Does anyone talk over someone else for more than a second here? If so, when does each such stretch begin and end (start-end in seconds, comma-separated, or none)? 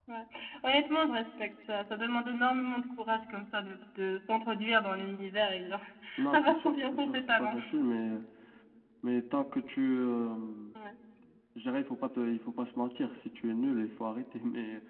6.3-7.6